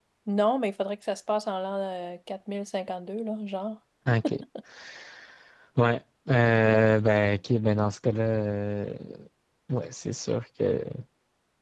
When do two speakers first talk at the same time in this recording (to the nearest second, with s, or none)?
none